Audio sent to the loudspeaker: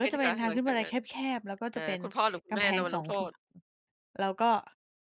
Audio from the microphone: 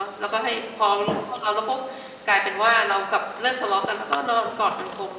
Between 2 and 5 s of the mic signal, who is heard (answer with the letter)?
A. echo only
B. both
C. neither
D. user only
D